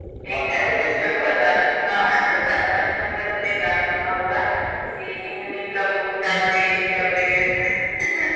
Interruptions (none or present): present